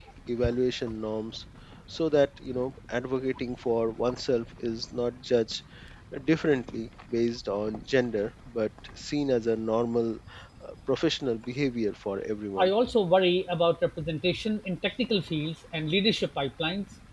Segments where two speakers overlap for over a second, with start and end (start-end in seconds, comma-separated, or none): none